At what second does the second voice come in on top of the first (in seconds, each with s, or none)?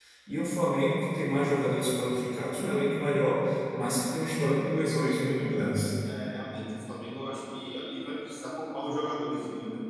none